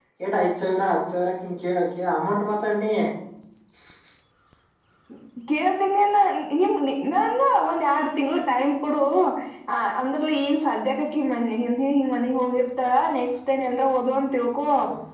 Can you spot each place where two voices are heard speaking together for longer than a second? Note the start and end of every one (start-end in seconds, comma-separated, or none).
none